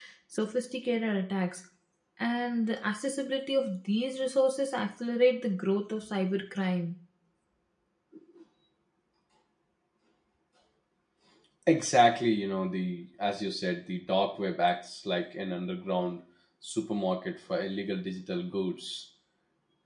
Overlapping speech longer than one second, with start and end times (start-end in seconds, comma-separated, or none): none